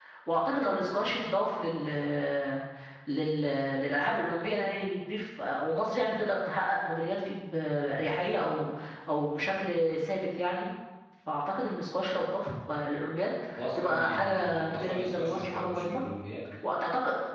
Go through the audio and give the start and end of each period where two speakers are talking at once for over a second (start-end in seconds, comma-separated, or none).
13.8-16.0